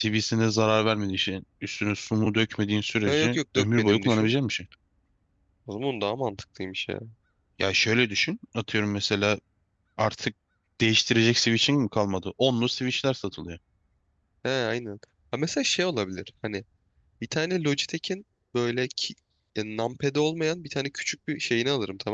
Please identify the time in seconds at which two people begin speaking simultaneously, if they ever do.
3 s

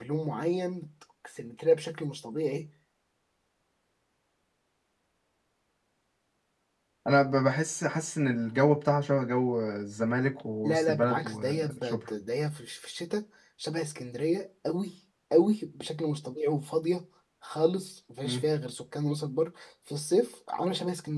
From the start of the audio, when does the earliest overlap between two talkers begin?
11 s

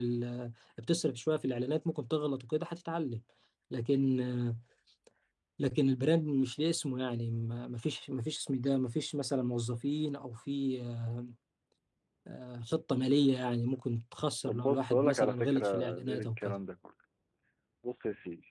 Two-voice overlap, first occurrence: 14 s

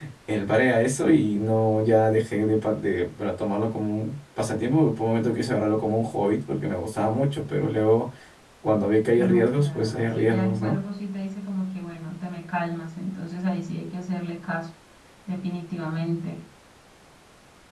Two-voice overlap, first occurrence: 9 s

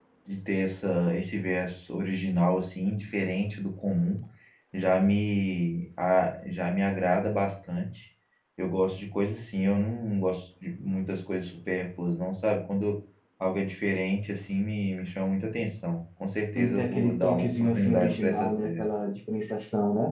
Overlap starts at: 17 s

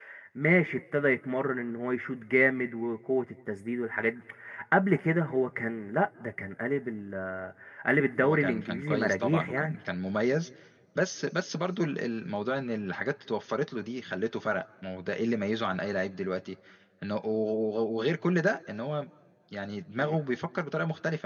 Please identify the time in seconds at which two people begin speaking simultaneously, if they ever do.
8 s

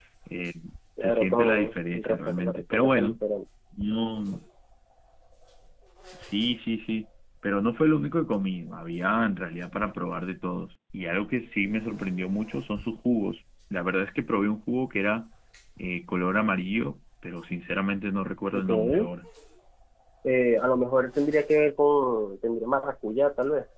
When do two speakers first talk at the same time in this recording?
1 s

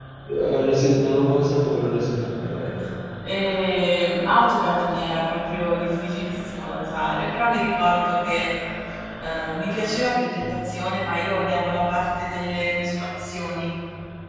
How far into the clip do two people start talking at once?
none

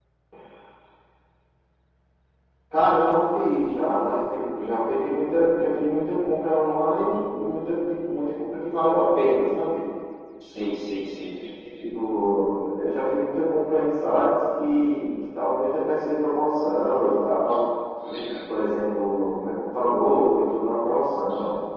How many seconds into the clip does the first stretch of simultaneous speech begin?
none

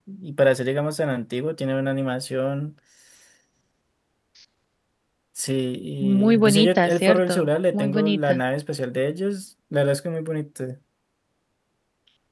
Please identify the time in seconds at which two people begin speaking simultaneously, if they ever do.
6 s

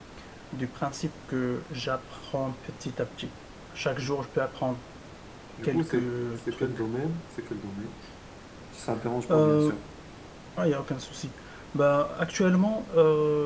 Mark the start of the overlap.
6 s

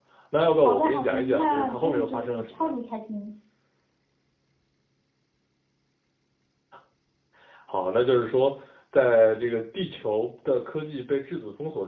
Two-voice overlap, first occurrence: 1 s

